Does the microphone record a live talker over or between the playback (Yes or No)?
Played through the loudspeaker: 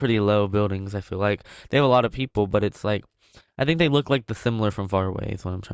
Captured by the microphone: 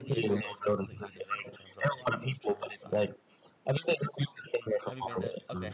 Yes